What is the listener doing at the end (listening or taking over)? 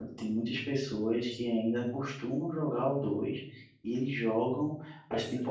listening